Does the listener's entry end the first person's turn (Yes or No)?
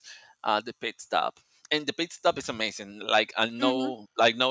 No